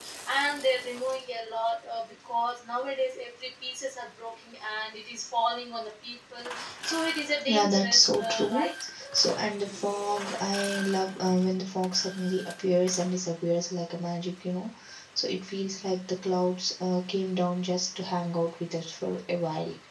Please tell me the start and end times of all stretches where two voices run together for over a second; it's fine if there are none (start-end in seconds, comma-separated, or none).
7.5-8.7